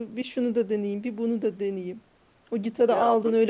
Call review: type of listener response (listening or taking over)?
listening